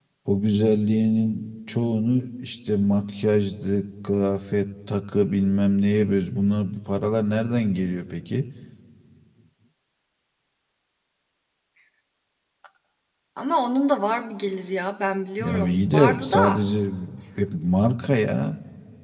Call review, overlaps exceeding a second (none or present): present